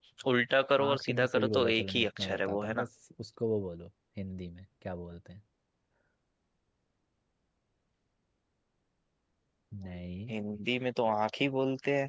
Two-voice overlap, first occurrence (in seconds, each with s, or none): 0.8 s